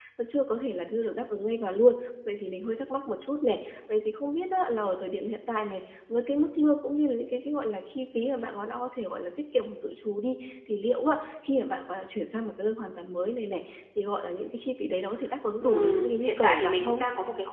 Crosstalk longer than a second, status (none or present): present